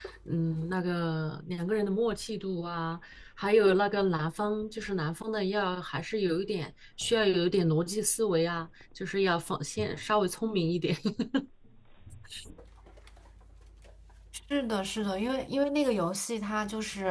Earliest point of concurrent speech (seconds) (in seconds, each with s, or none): none